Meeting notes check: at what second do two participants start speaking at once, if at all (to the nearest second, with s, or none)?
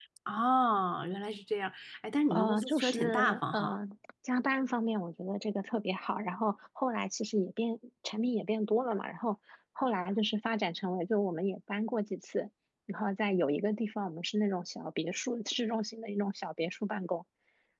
2 s